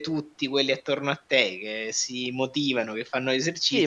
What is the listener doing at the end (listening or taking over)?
taking over